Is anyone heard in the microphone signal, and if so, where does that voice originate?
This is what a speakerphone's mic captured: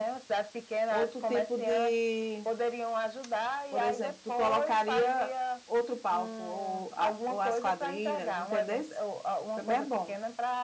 both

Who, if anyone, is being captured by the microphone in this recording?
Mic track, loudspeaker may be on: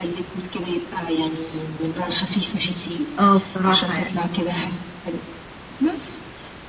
both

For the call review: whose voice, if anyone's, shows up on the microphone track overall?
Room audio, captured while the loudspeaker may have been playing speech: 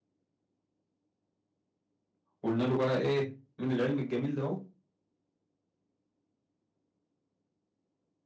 user only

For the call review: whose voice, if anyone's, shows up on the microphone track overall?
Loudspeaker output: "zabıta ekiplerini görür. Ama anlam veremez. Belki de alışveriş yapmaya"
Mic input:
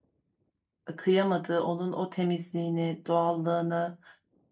user only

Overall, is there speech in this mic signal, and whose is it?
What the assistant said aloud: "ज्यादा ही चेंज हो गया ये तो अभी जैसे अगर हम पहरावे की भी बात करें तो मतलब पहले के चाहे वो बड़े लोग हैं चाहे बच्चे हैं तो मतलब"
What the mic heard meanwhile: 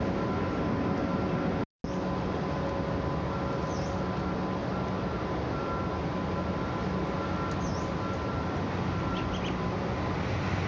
neither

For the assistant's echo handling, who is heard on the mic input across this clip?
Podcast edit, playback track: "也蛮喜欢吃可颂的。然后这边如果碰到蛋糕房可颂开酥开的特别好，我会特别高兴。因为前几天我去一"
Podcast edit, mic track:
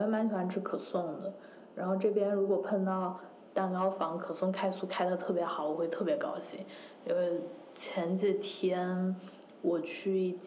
echo only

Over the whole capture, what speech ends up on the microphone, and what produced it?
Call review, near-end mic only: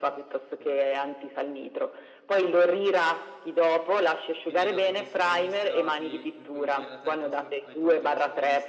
both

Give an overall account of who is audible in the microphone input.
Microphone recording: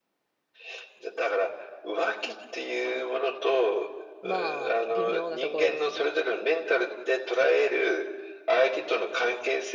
both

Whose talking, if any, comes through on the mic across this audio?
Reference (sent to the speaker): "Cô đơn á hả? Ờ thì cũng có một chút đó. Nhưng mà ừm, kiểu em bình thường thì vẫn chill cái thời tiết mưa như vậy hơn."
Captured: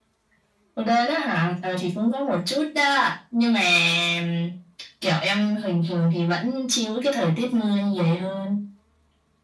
echo only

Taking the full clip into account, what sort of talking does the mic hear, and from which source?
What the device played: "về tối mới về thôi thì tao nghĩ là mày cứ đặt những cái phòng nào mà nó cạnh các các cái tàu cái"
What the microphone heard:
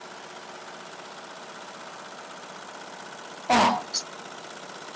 user only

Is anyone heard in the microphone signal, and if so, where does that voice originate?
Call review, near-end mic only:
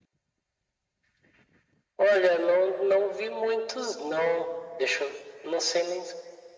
echo only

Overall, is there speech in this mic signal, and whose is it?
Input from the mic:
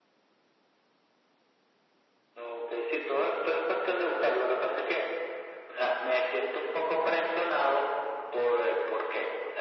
echo only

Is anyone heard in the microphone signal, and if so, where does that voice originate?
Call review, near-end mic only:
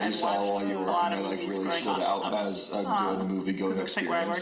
both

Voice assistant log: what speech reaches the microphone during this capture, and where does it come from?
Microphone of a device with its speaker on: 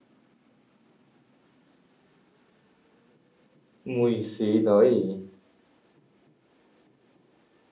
user only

